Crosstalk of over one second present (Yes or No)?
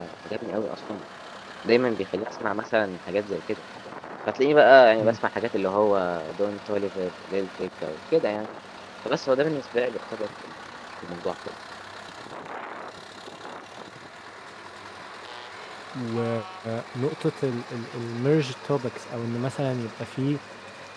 No